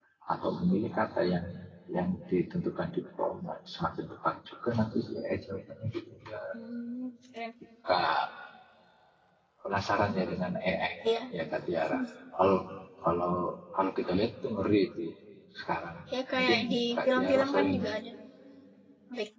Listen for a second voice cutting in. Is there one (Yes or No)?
Yes